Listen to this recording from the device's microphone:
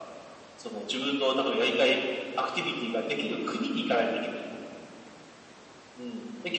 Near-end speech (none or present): none